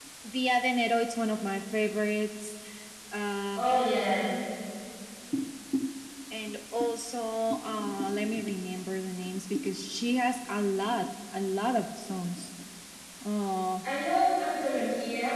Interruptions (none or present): none